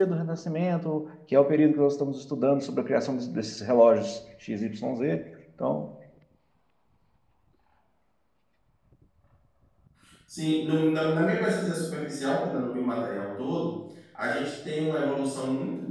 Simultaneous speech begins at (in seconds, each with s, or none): none